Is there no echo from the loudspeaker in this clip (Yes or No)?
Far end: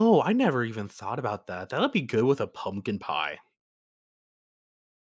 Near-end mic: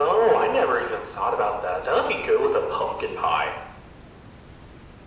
No